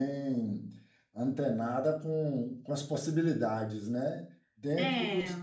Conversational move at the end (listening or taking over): listening